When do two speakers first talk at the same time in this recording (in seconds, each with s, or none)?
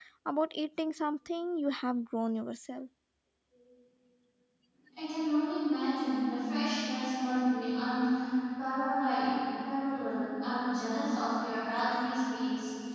none